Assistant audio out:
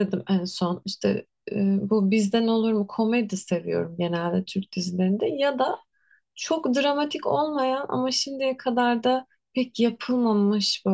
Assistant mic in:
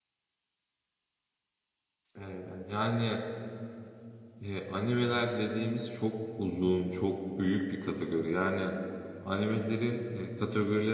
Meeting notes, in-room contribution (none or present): present